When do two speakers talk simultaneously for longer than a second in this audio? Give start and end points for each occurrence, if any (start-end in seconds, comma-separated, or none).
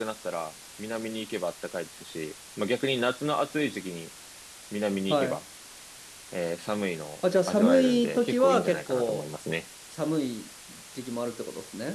7.5-9.3